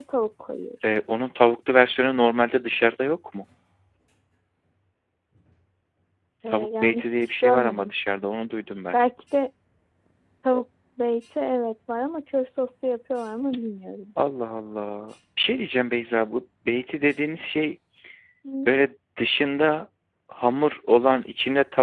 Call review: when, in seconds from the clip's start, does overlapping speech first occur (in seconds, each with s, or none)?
6.5 s